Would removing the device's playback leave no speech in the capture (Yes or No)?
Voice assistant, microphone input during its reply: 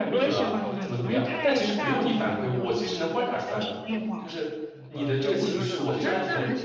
No